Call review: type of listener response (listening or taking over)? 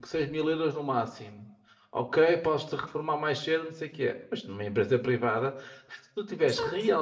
listening